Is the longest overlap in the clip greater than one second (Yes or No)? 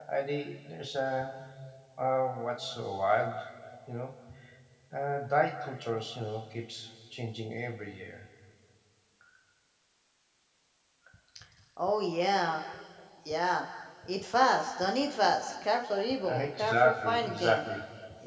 Yes